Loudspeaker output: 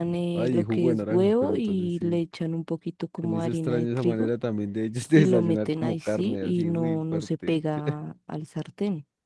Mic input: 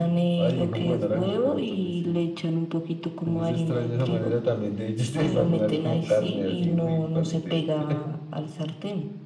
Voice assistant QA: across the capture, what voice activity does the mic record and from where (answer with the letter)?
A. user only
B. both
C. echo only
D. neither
C